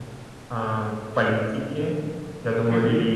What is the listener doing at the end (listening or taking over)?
listening